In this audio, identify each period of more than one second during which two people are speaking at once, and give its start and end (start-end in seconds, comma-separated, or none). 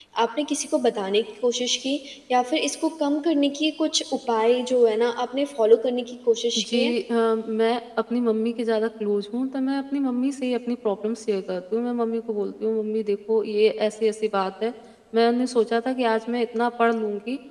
none